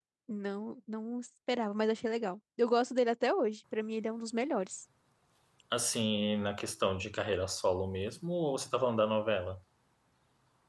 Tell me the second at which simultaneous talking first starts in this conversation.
none

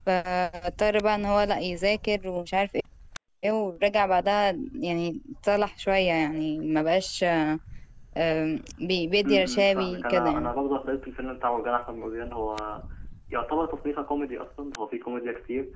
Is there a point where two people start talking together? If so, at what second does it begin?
9 s

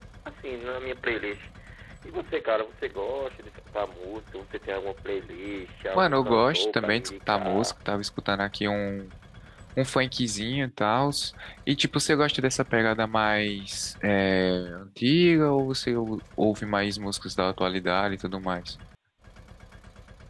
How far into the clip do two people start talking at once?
6 s

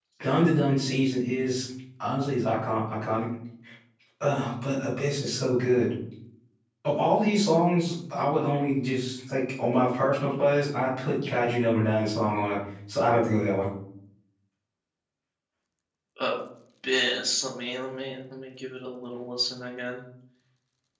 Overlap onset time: none

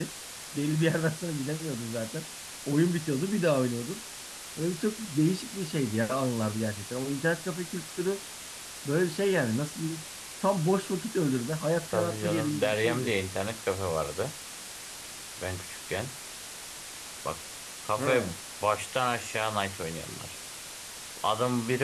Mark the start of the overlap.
12 s

